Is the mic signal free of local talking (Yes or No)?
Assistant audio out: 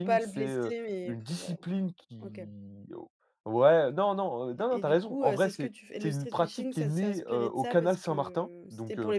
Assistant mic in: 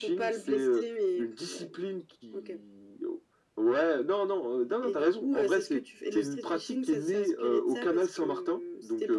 Yes